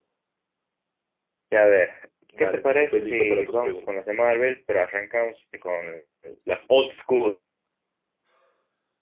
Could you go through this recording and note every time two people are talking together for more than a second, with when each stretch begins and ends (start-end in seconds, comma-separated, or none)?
2.4-3.9